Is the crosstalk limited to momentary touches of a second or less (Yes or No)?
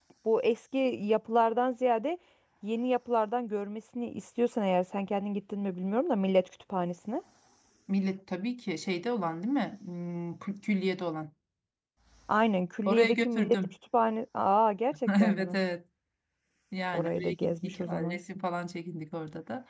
No